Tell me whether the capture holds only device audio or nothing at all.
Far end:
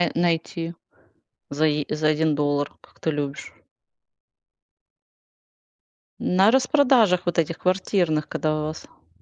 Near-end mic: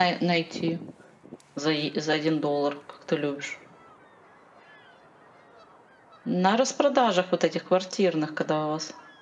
Yes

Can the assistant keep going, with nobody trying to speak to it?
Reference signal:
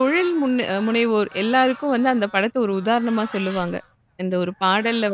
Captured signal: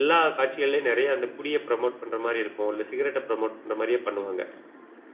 No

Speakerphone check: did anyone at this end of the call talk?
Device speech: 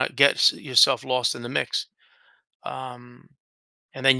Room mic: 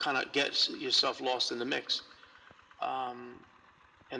No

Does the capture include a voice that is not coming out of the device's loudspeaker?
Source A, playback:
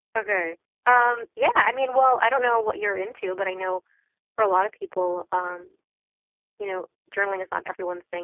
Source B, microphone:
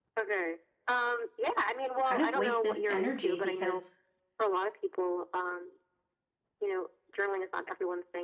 Yes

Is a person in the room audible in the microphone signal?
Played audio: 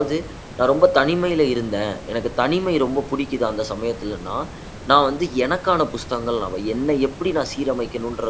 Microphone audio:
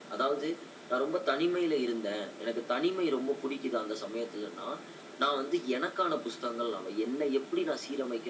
No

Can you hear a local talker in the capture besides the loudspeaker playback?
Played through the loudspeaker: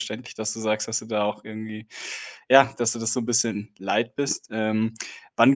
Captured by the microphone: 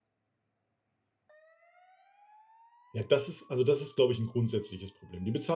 Yes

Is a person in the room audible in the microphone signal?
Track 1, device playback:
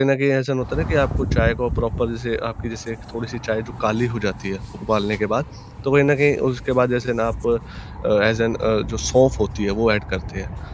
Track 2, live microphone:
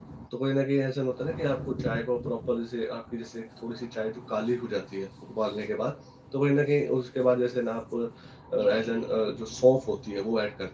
Yes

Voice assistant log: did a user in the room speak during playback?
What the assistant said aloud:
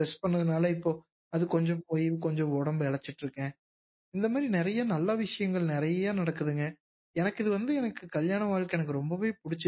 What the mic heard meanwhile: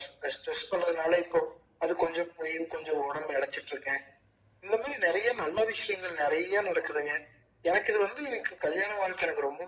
No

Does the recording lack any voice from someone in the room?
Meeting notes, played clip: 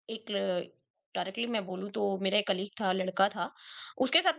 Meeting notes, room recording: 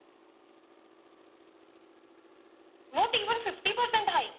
No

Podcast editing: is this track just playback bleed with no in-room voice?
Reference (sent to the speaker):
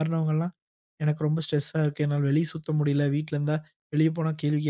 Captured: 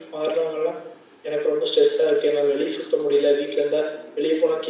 Yes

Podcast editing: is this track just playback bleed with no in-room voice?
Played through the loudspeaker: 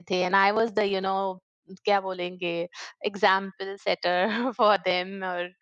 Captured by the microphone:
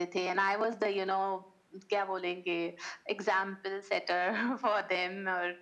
Yes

